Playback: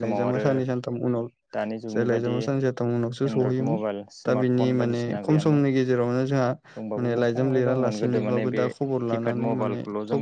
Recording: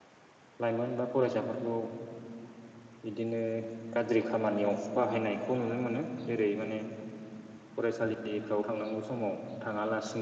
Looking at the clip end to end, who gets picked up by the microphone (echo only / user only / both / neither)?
user only